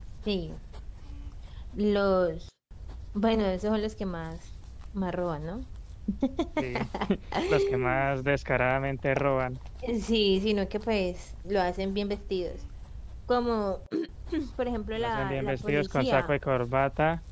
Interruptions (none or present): present